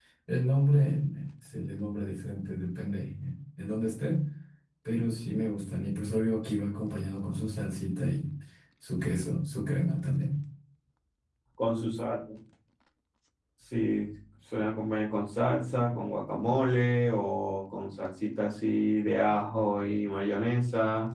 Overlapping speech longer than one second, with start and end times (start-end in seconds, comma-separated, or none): none